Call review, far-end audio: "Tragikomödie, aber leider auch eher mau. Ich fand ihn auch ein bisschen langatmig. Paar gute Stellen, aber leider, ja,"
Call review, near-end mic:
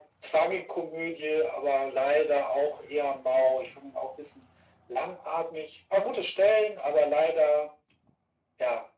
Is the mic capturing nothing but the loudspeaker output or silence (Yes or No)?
Yes